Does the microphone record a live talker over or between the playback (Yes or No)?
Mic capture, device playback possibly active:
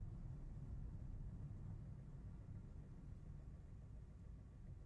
No